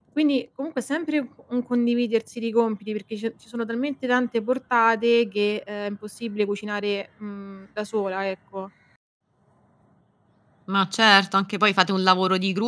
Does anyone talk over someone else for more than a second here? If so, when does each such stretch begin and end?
none

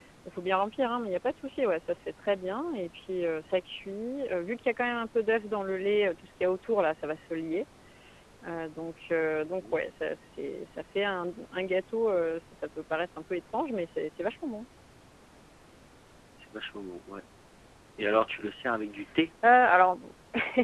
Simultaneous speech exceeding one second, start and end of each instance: none

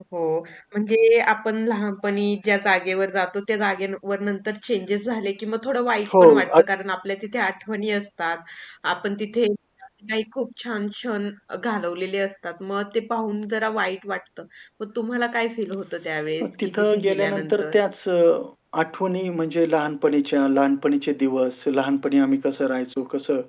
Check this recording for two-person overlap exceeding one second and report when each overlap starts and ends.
16.4-17.8

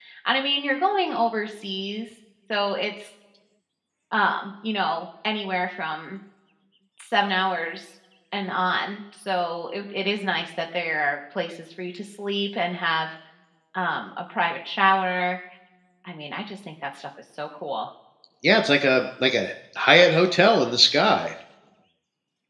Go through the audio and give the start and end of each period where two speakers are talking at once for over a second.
none

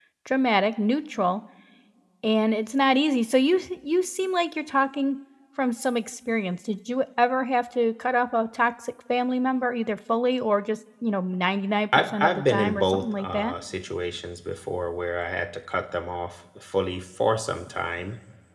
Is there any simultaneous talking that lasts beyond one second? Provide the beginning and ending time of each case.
12.2-13.5

